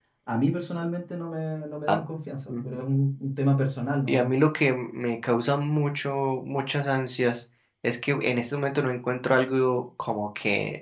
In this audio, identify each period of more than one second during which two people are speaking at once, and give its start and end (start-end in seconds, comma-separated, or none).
none